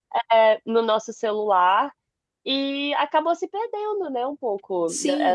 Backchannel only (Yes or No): No